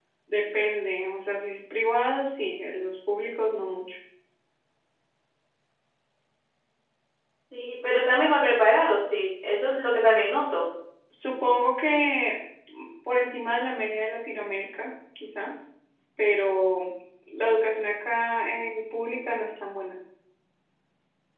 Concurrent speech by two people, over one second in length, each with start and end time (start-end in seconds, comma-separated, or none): none